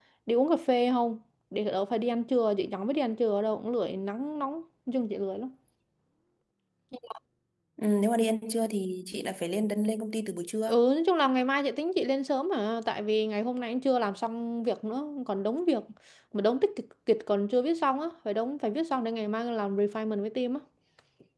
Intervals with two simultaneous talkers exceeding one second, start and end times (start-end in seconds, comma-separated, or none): none